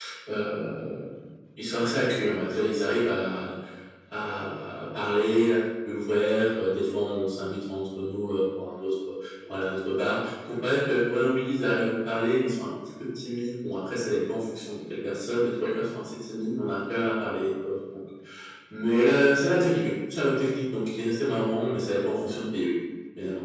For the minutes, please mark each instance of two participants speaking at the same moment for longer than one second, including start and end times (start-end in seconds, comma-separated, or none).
none